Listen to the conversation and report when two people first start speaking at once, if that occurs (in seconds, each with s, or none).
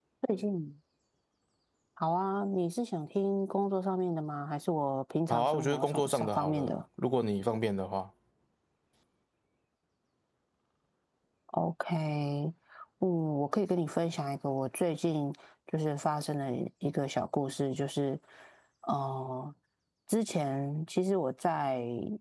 5.3 s